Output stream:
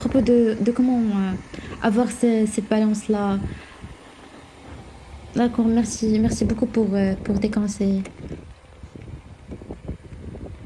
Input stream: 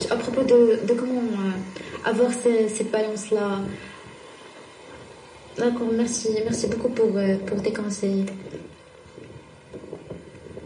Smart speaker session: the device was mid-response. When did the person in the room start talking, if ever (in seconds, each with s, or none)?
none